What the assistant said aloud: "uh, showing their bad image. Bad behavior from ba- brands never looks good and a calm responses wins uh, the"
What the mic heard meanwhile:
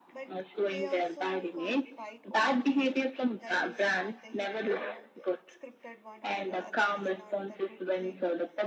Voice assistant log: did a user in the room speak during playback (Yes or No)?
Yes